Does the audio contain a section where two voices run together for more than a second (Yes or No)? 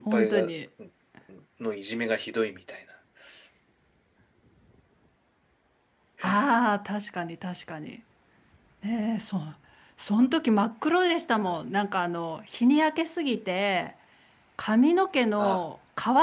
No